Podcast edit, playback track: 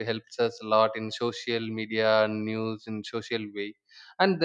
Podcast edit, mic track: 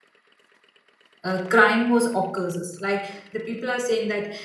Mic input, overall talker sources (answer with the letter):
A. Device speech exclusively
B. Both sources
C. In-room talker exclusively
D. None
C